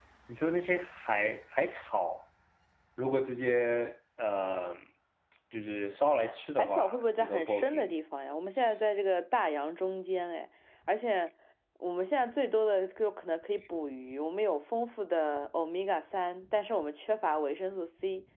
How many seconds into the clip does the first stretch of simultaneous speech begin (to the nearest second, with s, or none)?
7 s